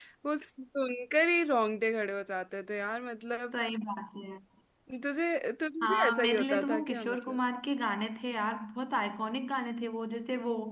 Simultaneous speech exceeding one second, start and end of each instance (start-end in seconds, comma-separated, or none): 5.8-7.4